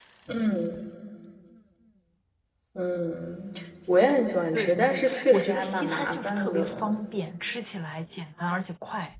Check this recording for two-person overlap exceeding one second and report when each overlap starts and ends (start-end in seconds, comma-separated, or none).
4.5-7.0